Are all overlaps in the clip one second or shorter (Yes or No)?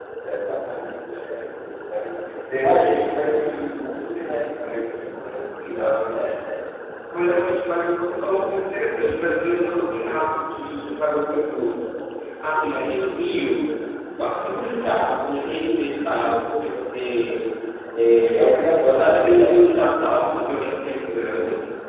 No